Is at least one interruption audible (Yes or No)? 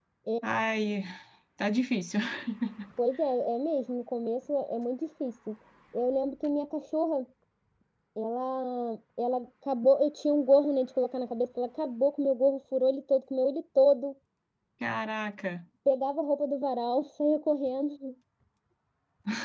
No